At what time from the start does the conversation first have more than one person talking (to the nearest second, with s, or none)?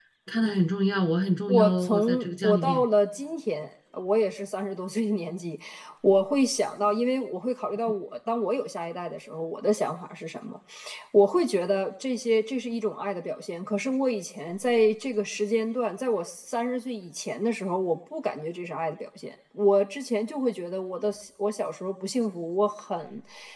1 s